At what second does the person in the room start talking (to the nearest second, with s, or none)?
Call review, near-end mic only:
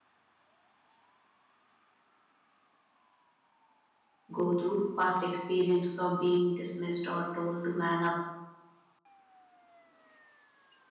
4 s